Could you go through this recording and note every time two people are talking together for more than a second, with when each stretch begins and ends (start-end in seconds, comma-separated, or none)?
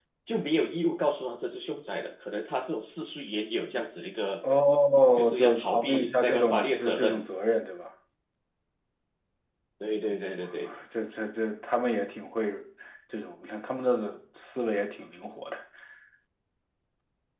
5.2-7.2